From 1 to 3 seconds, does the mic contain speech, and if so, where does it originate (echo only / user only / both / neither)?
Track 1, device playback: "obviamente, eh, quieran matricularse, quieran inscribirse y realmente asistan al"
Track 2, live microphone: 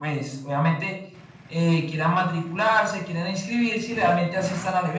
echo only